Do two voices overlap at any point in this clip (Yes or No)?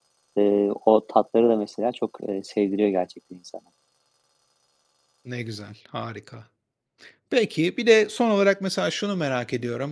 No